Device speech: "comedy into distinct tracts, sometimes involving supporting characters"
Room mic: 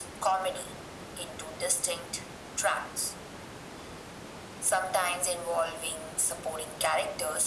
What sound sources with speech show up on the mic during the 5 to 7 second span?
echo only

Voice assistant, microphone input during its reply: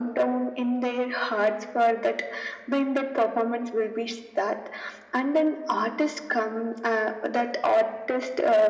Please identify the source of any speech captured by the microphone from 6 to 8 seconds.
echo only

